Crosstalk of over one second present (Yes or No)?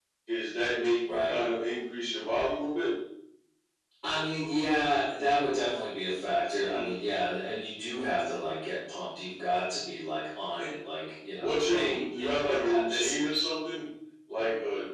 Yes